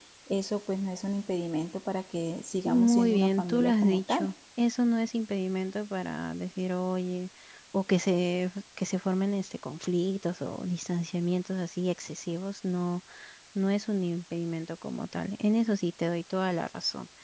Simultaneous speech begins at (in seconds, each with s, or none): 2.6 s